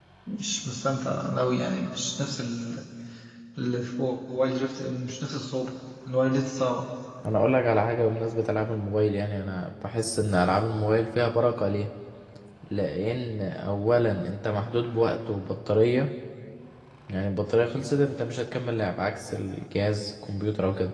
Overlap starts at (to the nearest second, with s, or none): none